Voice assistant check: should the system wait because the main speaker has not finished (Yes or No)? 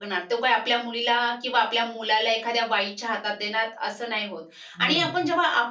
Yes